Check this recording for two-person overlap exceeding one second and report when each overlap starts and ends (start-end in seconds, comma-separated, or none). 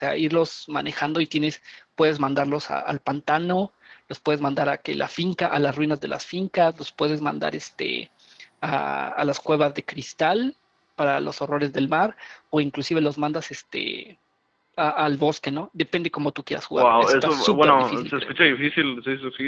16.8-18.3